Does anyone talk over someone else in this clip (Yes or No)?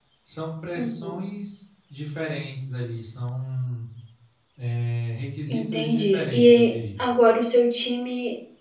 Yes